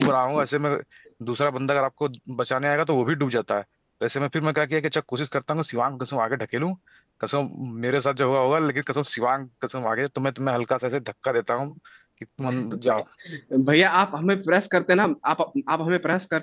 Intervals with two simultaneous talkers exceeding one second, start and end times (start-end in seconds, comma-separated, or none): none